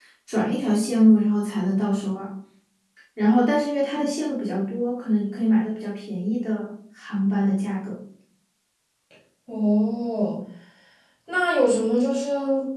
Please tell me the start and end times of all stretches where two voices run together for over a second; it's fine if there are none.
none

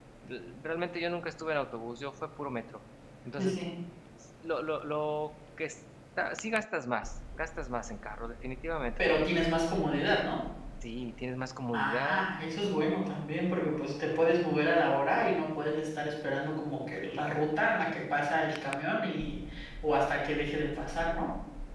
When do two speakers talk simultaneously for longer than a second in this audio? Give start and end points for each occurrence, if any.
none

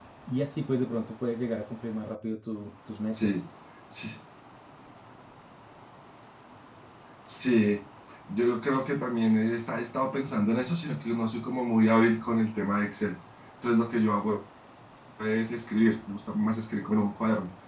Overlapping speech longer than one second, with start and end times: none

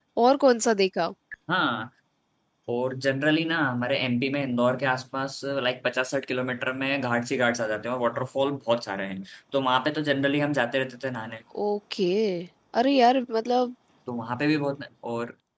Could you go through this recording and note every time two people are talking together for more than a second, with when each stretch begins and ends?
none

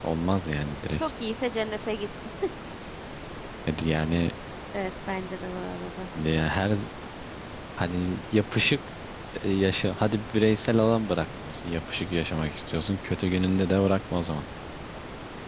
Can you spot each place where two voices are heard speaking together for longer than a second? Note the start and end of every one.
none

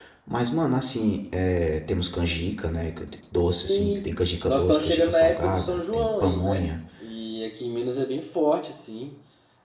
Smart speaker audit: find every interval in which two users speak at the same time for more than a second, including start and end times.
4.4-6.6

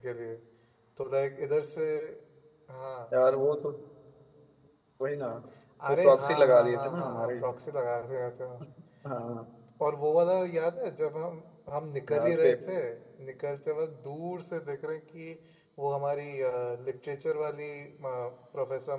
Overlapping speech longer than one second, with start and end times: 5.9-7.3

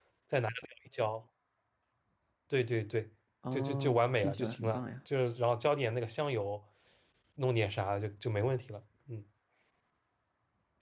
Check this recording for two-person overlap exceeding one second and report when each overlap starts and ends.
3.5-4.8

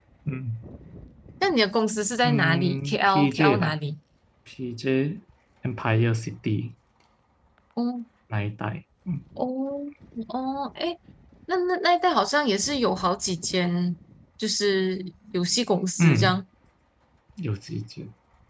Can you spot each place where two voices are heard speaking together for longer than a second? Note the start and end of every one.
2.2-3.8

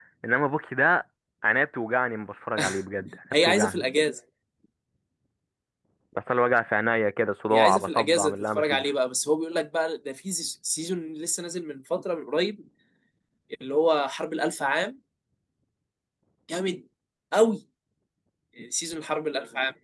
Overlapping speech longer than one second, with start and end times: 7.5-8.8

